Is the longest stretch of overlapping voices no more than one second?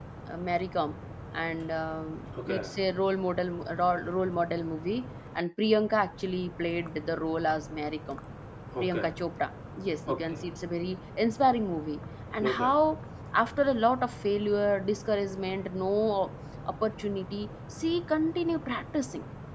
Yes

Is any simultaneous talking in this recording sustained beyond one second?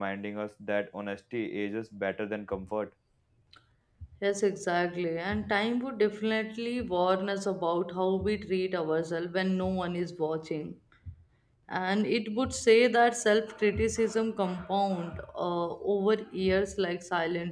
No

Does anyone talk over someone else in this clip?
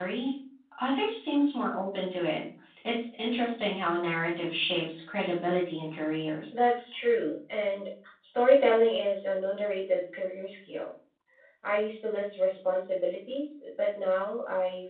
No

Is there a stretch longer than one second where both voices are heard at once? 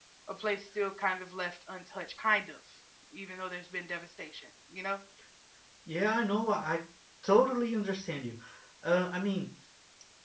No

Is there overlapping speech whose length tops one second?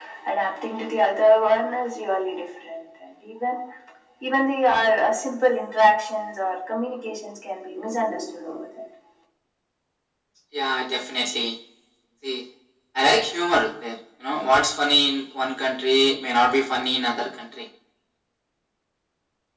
No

